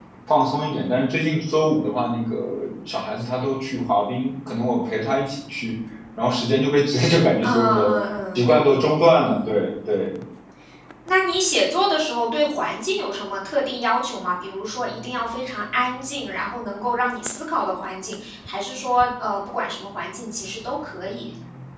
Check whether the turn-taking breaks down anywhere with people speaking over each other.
Yes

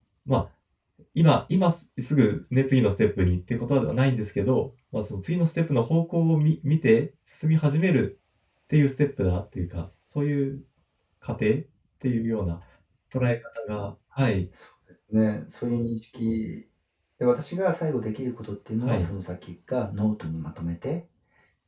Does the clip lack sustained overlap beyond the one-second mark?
Yes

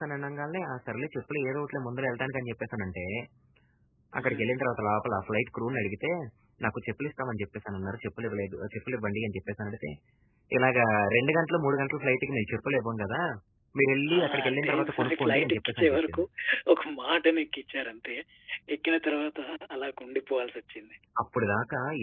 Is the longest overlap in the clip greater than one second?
Yes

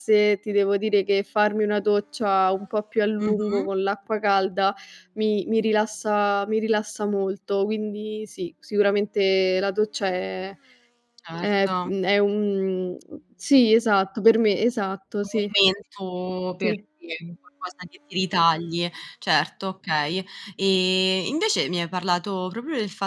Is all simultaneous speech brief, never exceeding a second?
Yes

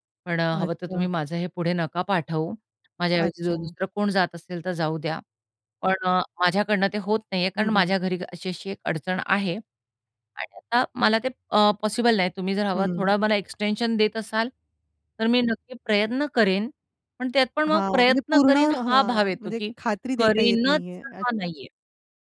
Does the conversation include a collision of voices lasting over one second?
Yes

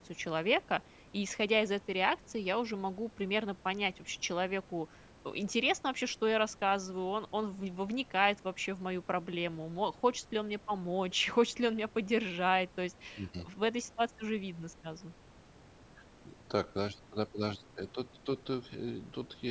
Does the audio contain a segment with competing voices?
No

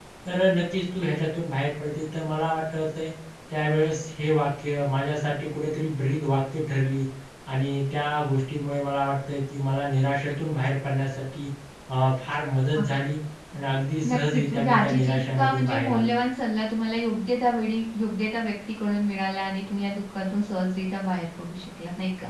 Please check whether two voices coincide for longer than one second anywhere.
Yes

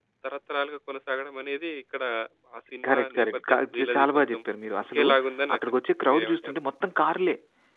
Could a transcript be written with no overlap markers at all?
No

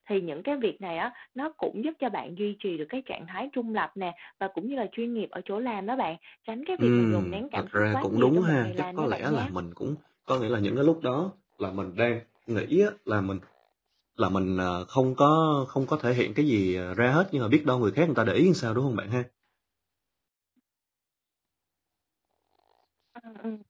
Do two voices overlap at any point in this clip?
Yes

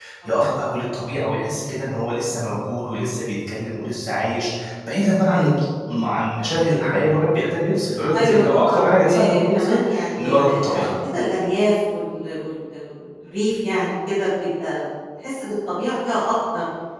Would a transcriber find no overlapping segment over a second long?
No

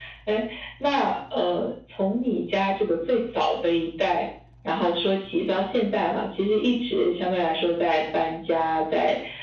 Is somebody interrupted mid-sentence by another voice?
No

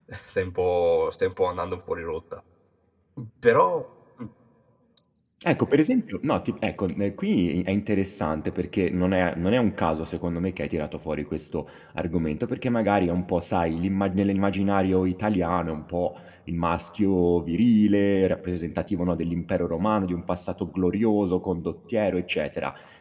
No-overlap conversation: Yes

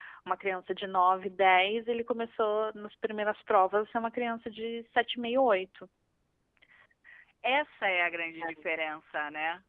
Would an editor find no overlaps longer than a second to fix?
Yes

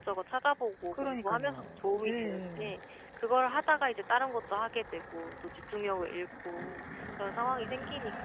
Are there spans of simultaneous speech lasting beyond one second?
Yes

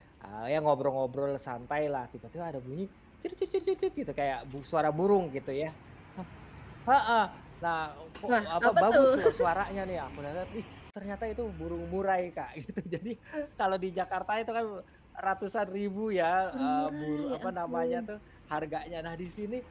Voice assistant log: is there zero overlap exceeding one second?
No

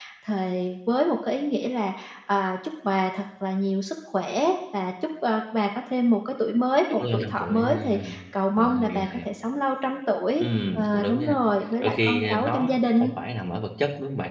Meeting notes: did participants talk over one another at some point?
Yes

